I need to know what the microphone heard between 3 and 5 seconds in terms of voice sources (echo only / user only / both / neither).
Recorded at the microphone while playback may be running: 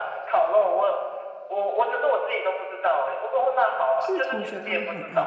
both